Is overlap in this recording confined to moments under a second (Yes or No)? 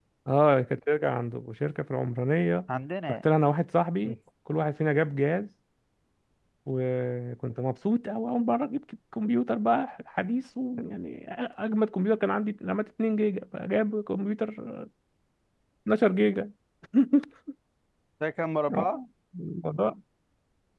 Yes